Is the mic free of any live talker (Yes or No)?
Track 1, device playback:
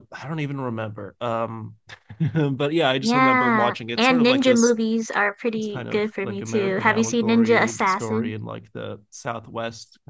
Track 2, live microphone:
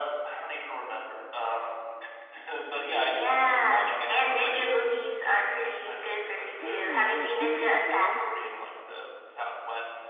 No